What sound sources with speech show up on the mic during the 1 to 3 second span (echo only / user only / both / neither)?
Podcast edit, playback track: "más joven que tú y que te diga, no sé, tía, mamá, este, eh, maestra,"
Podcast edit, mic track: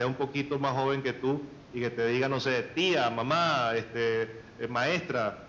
echo only